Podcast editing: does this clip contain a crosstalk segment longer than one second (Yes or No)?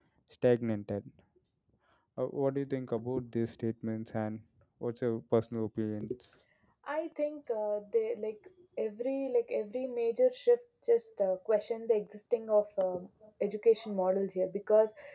No